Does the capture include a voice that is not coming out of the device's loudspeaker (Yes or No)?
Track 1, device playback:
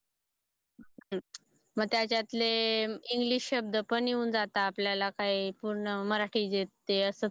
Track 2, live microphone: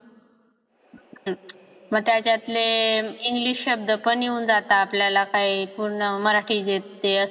No